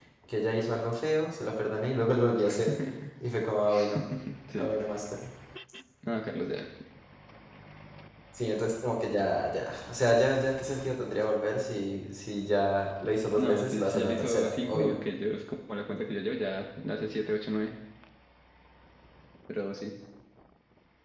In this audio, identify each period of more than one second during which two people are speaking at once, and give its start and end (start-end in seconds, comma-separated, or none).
13.4-14.9